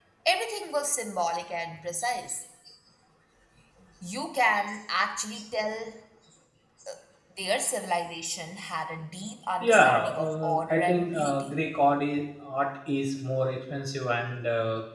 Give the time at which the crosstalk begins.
9.6 s

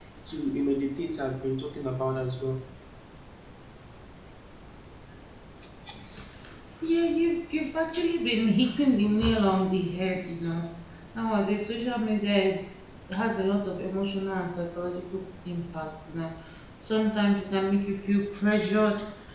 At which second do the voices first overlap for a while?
none

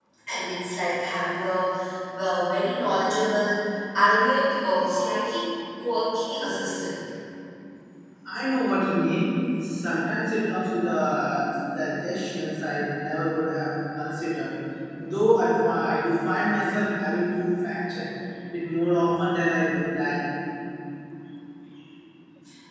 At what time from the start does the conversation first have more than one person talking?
none

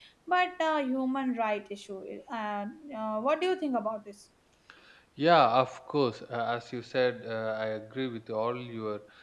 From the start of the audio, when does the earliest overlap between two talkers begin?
none

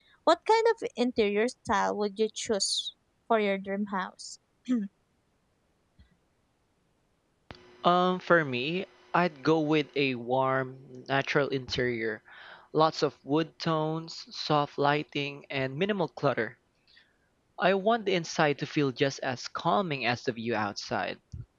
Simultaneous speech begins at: none

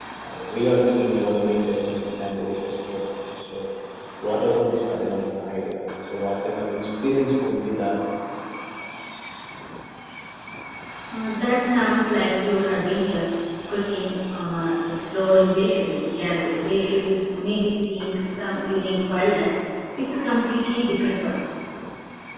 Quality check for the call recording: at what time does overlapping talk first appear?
none

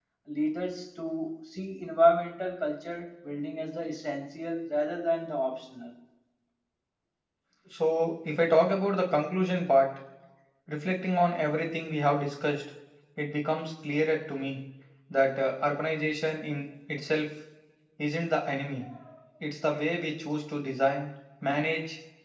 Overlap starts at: none

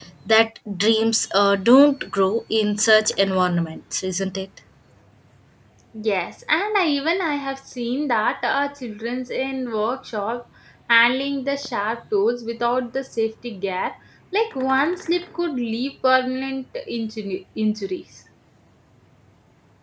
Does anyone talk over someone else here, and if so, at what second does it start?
none

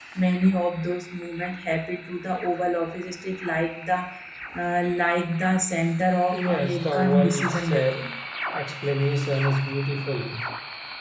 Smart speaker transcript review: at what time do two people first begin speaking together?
6.3 s

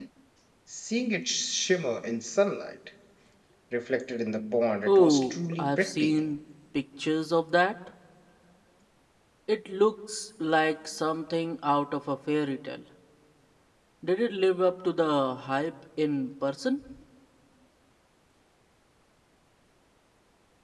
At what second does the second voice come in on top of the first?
4.9 s

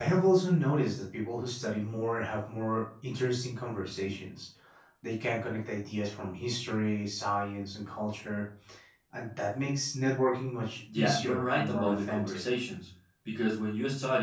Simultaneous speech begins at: 10.9 s

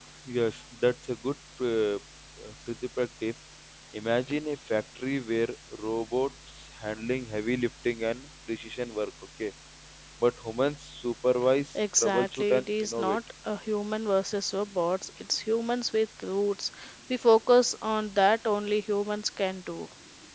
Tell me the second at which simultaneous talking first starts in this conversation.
11.8 s

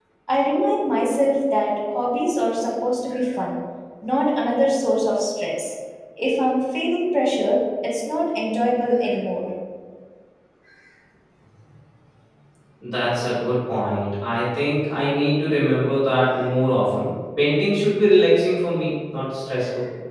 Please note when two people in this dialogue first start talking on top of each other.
none

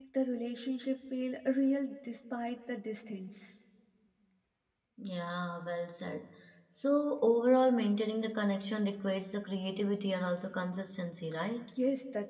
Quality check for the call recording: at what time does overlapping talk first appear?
none

